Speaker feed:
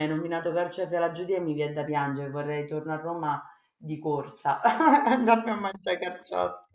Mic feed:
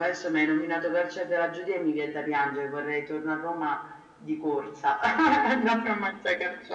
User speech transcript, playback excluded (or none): none